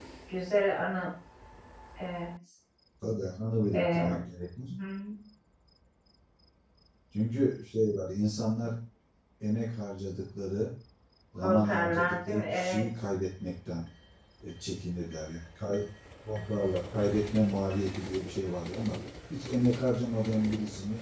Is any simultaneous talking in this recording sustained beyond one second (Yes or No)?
Yes